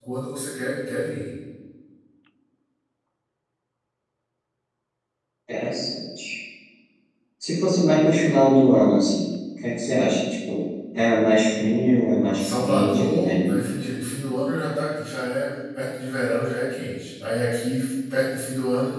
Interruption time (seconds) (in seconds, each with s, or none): 12.2 s